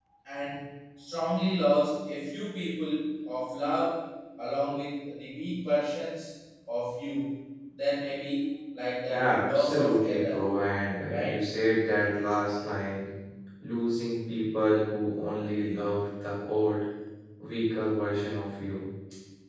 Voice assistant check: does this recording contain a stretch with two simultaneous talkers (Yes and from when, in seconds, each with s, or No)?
Yes, from 9.1 s